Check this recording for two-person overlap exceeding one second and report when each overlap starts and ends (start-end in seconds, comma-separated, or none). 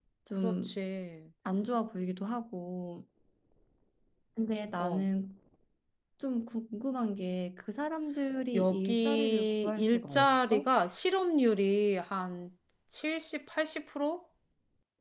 8.5-10.7